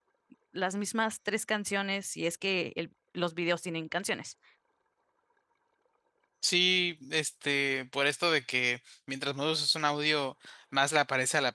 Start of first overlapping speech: none

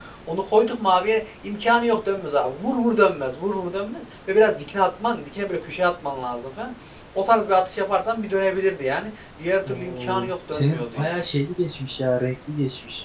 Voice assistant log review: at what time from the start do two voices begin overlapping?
9.6 s

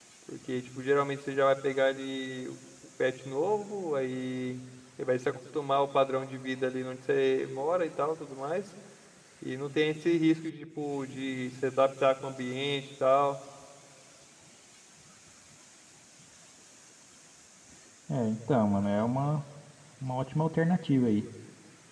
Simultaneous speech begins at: none

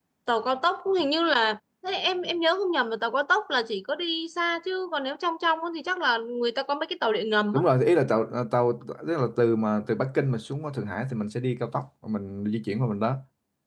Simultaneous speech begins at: none

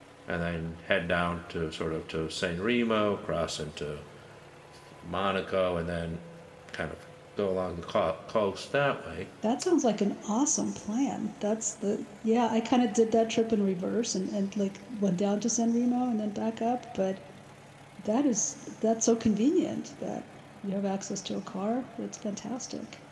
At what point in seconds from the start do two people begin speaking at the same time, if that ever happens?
none

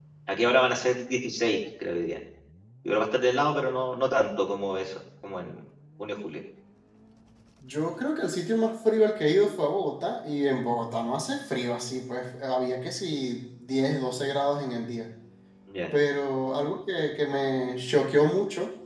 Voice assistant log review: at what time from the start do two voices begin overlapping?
none

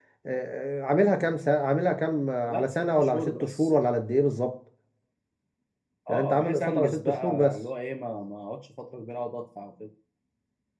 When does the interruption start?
2.4 s

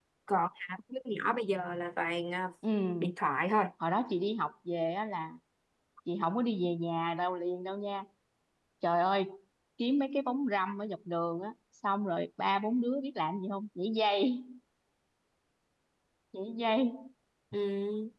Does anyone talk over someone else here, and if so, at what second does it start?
none

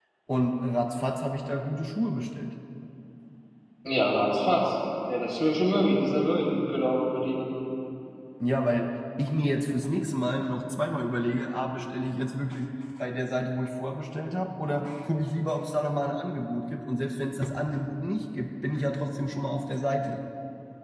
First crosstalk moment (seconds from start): none

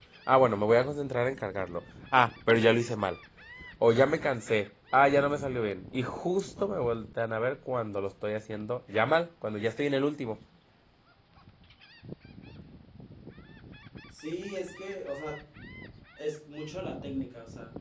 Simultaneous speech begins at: none

